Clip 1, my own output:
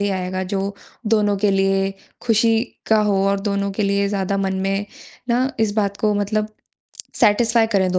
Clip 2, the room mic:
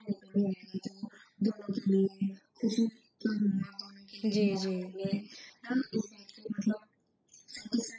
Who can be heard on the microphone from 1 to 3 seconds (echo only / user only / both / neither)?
echo only